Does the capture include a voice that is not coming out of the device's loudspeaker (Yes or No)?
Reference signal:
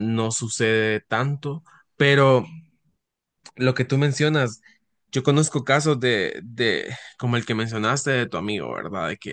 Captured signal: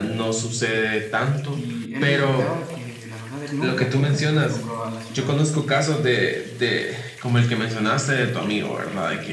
Yes